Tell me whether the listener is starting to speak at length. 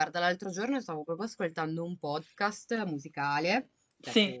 No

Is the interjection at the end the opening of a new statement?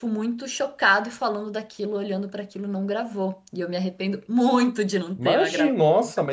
Yes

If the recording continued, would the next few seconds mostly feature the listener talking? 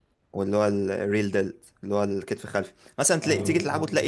No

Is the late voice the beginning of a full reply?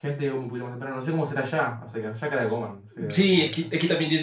Yes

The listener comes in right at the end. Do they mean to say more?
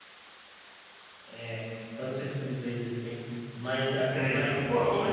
Yes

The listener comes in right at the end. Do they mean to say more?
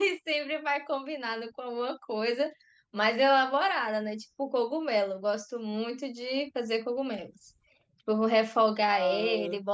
No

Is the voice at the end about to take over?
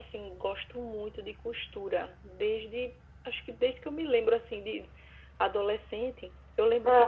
No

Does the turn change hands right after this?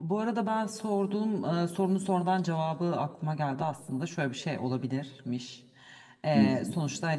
No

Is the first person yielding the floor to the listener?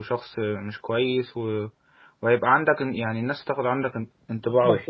Yes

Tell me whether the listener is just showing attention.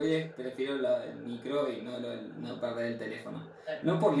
Yes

